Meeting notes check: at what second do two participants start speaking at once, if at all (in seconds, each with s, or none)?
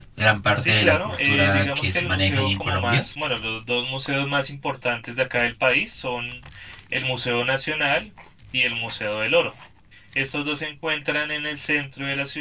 0.6 s